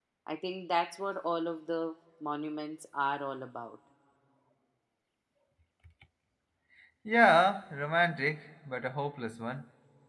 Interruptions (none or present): none